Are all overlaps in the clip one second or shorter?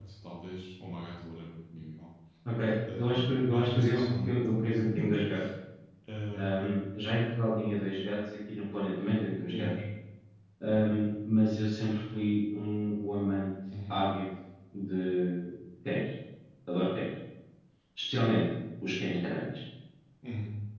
No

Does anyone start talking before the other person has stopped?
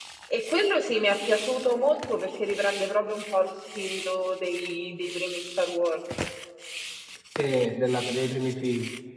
No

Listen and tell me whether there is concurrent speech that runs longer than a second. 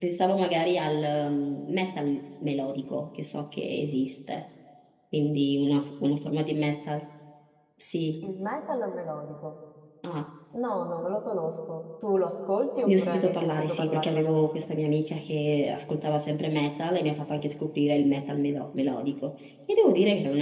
Yes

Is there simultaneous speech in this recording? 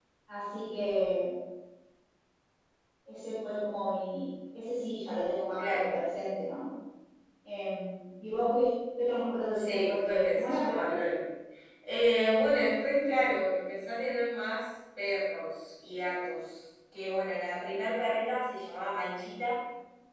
Yes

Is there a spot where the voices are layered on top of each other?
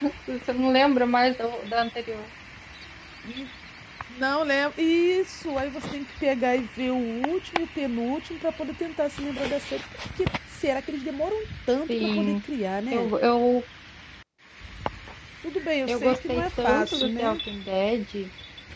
Yes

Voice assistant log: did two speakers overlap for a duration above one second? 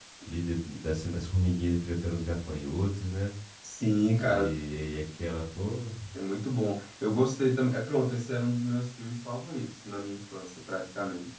No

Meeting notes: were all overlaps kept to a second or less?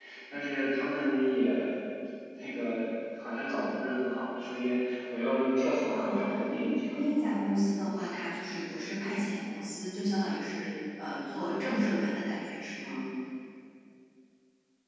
Yes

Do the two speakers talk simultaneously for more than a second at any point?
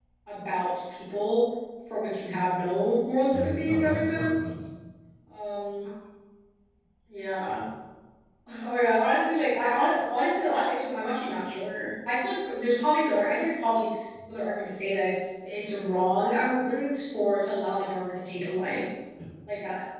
Yes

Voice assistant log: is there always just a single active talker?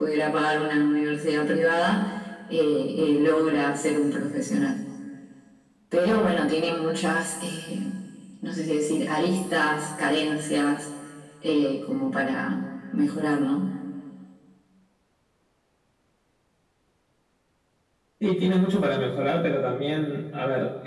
Yes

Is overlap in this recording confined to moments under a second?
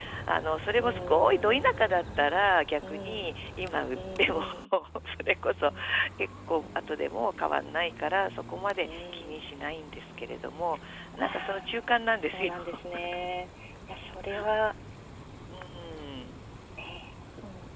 No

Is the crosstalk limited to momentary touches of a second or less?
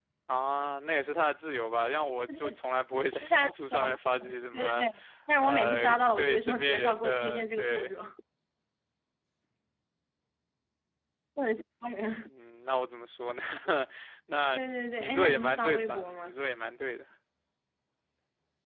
No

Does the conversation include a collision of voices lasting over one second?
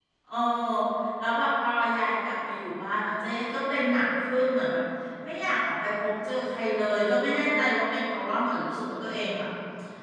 No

